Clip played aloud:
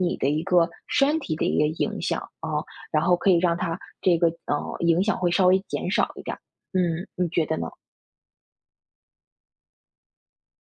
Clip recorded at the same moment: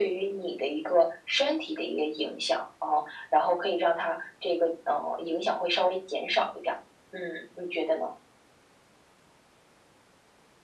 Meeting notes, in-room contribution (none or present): none